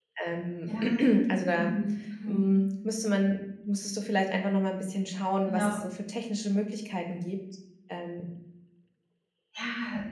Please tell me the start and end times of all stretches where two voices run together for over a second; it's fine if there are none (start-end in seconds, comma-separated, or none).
none